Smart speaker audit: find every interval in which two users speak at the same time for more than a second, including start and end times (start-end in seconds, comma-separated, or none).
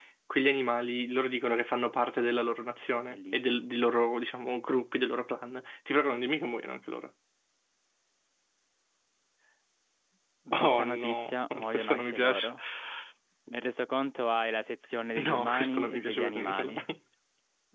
10.5-12.5, 15.2-16.8